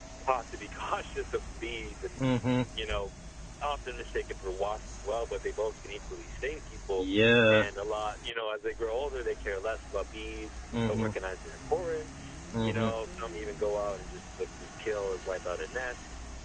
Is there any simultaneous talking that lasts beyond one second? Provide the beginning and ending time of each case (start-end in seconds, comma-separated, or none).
none